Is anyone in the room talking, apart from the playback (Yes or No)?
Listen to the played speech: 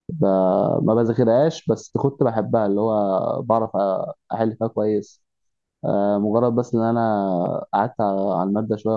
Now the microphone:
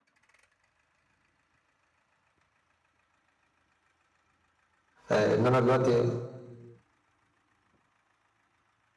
Yes